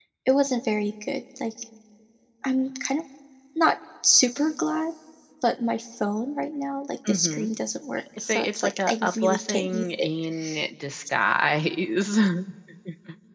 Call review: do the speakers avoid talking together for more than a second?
No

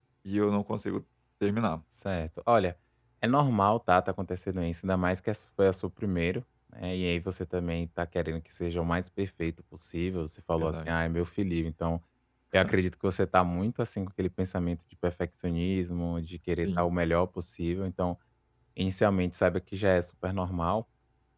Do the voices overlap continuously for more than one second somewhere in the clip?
No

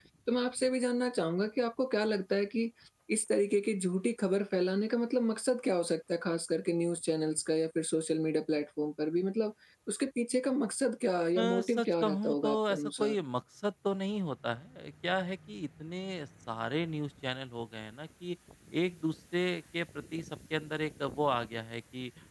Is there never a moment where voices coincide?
No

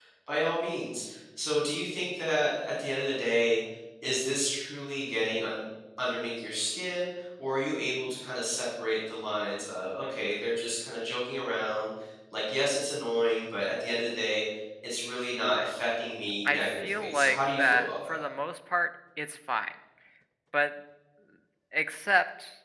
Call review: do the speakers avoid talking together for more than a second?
No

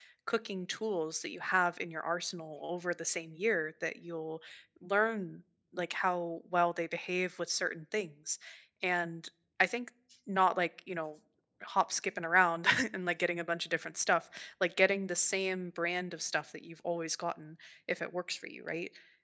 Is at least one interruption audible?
No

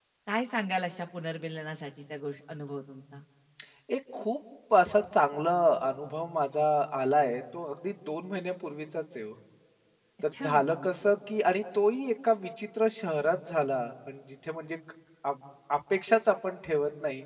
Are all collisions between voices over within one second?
Yes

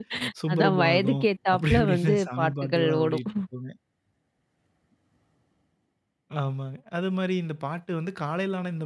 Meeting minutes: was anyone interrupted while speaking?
Yes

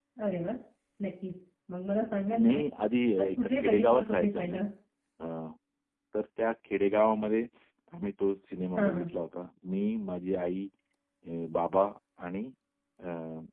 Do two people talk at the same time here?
Yes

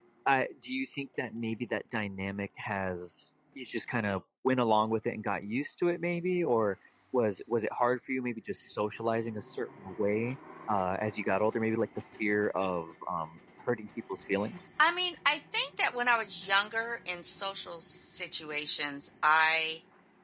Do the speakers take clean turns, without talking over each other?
Yes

